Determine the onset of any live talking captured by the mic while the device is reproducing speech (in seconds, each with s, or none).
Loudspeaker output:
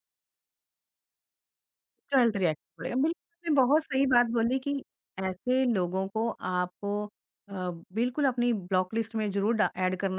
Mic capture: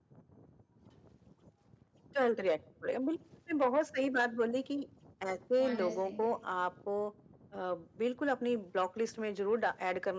5.7 s